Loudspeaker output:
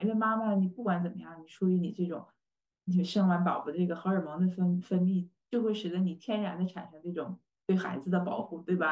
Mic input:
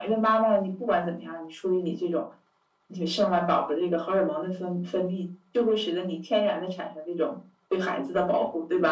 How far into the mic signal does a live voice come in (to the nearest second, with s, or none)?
none